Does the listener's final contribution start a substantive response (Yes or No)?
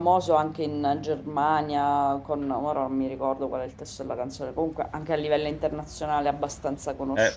Yes